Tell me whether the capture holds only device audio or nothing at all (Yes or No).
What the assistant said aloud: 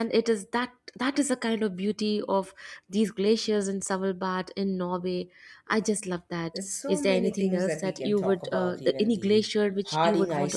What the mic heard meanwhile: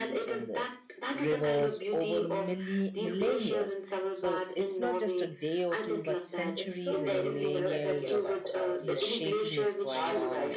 No